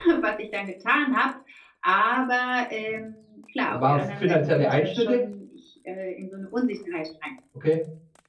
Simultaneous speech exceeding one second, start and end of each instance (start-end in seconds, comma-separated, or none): 3.7-5.2